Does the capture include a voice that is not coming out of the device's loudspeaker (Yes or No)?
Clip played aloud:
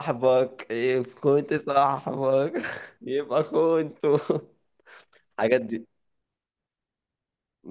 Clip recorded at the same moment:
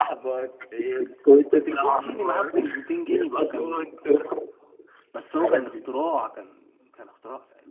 Yes